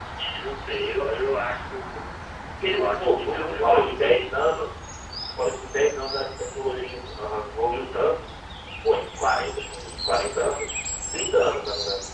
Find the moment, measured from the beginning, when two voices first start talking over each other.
2.6 s

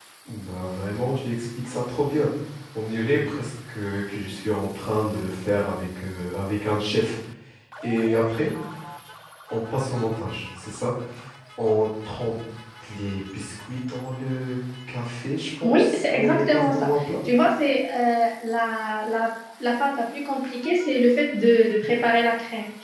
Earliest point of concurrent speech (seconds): 15.6 s

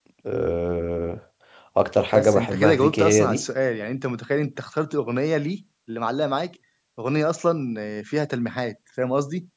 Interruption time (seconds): 2.1 s

